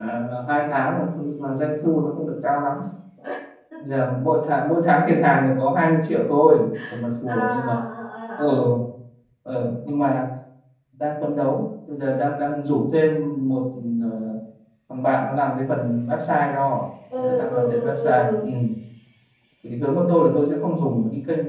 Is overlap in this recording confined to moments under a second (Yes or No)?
No